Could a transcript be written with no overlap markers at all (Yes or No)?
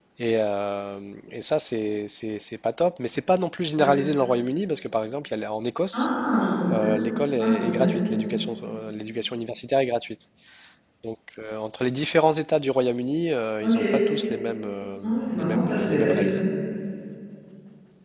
No